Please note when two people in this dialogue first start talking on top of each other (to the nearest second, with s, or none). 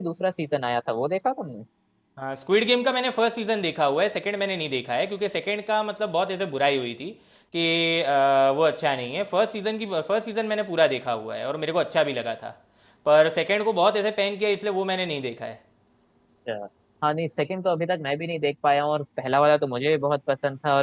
none